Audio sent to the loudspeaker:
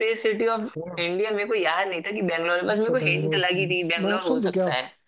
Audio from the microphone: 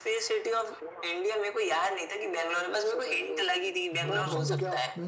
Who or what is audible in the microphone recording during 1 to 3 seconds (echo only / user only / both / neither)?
echo only